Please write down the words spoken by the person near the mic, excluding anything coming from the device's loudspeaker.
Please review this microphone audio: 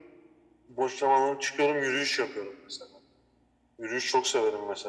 none

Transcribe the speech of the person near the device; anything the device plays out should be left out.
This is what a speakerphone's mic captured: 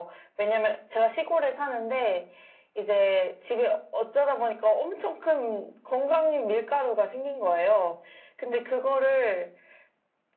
none

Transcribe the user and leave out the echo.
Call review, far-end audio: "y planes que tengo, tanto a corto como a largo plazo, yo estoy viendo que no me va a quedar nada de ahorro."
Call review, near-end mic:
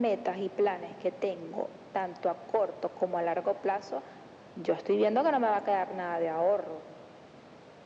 none

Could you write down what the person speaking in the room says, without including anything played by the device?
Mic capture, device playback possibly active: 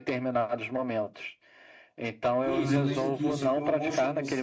e eu lembro que isso,

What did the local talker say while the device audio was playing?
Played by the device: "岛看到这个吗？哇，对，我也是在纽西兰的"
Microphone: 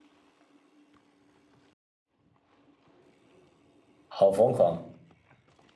好疯狂。

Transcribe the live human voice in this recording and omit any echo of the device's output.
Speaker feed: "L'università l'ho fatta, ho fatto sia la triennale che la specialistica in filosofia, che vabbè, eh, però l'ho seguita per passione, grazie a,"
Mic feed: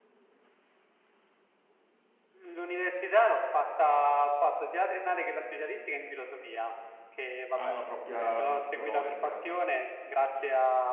ha una propria, una propria logica, no?

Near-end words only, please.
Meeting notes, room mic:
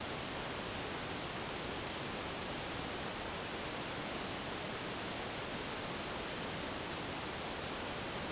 none

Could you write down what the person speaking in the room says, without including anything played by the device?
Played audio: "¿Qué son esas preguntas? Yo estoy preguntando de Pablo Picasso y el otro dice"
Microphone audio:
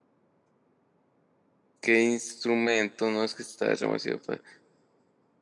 ¿qué instrumento? No, es que está demasiado fácil.

